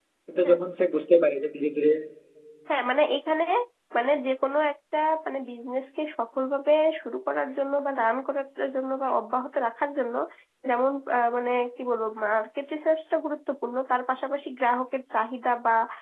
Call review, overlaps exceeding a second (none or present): none